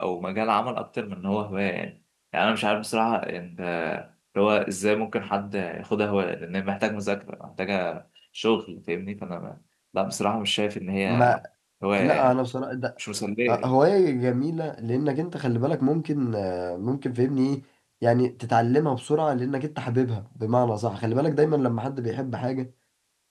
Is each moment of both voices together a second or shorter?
Yes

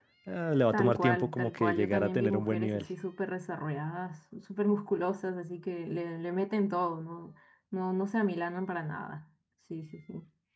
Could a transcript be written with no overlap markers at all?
No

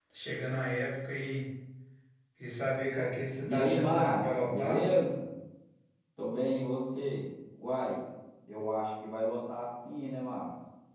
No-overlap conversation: No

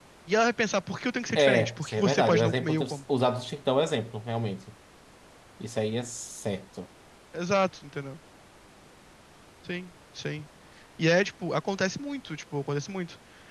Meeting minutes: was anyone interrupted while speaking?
Yes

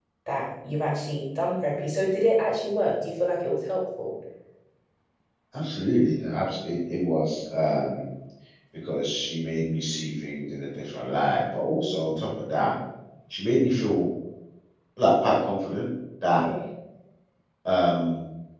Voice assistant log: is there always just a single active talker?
Yes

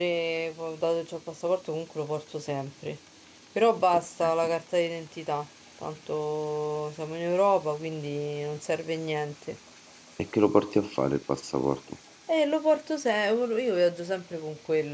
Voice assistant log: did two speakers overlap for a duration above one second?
No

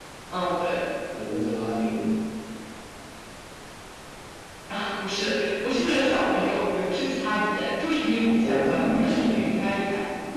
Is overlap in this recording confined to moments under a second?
No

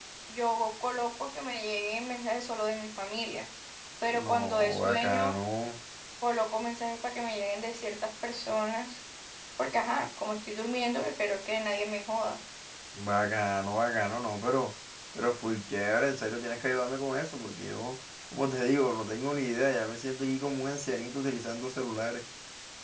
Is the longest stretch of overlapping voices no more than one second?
No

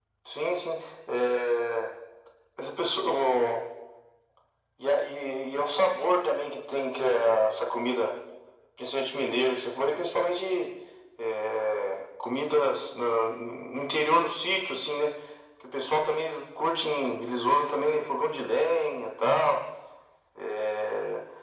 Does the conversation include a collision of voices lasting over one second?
No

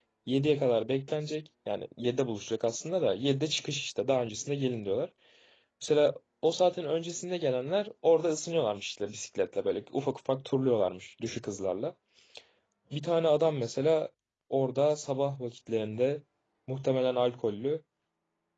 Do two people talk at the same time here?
No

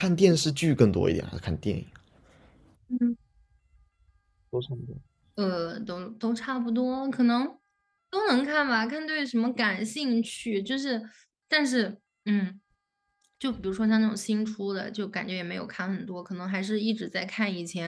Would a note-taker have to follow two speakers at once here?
No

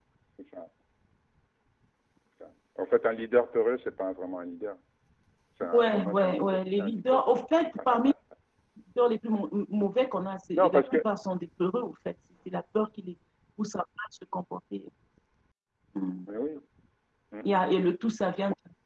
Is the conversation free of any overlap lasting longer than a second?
No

